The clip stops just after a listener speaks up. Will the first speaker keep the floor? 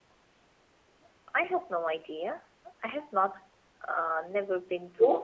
No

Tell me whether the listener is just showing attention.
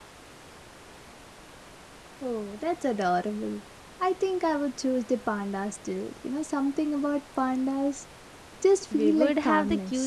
No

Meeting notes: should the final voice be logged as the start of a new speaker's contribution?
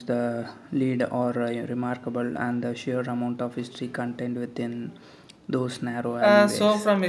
Yes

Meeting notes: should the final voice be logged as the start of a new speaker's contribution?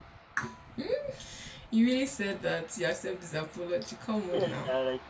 Yes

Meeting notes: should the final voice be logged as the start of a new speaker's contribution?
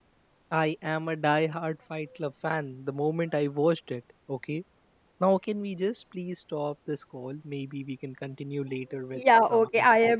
Yes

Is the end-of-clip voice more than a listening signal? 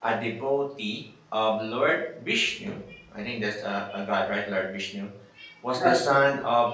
No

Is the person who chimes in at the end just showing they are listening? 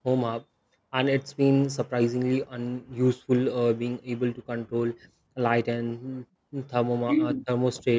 Yes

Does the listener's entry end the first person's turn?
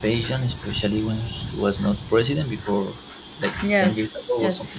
Yes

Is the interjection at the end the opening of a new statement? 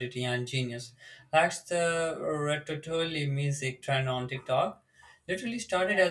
No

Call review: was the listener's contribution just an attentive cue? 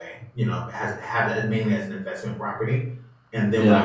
Yes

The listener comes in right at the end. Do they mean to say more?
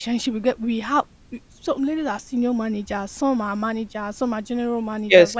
No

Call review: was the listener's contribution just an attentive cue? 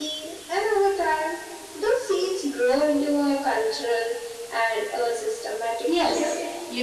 No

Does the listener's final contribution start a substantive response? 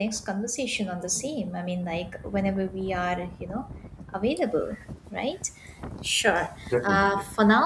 No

